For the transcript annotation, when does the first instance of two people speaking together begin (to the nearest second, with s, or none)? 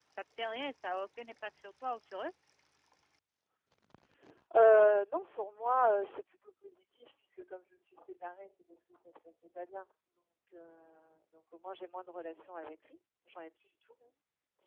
none